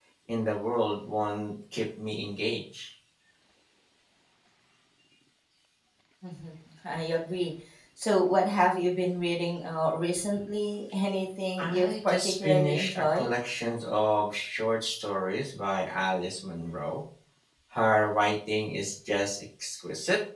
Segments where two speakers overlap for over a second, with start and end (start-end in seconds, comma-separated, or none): 11.6-13.3